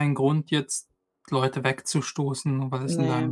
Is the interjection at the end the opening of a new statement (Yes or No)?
No